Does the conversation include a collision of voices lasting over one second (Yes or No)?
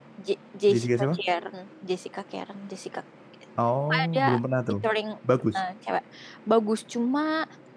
No